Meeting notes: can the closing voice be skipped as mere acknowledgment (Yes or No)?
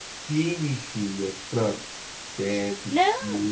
Yes